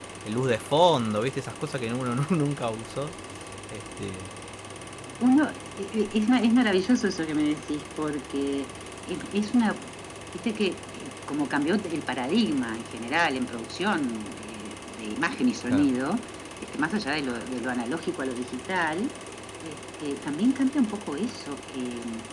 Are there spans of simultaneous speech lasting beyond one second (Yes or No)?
No